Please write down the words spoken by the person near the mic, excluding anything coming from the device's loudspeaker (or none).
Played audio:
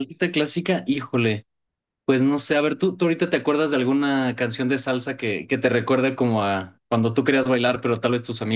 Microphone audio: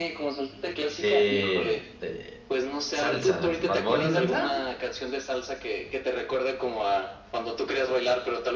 Eh, eh, salsa, Bad Bunny salsa,